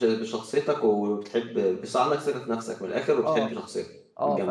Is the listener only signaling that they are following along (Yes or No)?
No